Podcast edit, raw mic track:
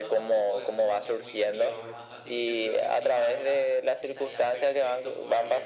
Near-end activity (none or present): present